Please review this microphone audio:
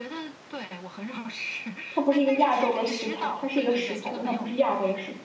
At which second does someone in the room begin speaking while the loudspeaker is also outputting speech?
1.9 s

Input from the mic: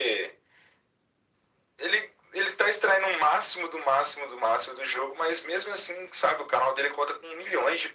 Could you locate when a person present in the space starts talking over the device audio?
none

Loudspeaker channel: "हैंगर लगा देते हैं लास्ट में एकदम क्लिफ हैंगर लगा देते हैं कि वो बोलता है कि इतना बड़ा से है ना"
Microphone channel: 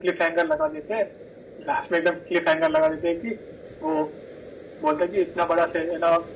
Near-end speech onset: none

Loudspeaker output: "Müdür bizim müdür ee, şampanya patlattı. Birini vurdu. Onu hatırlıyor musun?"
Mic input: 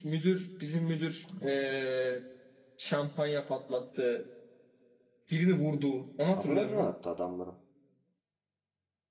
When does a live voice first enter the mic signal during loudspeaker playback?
6.3 s

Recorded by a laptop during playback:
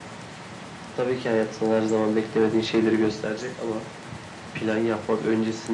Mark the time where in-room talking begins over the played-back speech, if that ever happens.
none

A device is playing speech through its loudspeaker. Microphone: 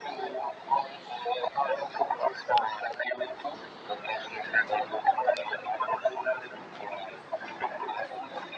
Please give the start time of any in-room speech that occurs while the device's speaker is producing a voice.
none

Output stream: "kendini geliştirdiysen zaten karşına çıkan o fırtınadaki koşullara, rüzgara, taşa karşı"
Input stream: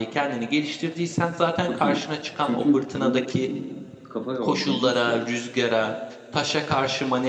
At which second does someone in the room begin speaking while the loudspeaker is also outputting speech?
1.6 s

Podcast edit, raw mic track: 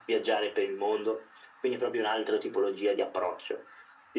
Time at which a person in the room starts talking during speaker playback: none

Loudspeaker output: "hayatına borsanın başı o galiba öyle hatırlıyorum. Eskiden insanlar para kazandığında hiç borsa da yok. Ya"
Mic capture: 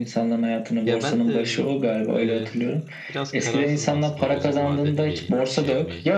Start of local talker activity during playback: 0.8 s

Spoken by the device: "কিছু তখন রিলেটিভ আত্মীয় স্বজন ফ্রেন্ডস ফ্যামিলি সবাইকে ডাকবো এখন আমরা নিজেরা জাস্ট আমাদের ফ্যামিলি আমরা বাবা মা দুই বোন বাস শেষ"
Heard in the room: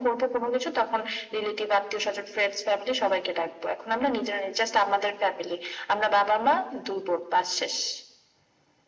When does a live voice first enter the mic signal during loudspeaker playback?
none

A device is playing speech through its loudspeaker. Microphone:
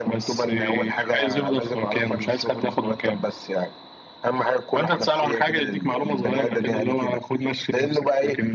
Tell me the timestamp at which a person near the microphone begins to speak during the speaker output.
none

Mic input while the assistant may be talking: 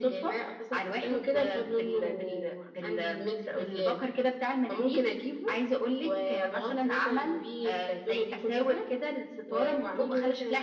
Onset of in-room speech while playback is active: none

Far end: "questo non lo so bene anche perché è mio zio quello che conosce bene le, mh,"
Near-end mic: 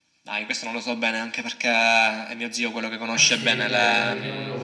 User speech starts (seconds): 3.1 s

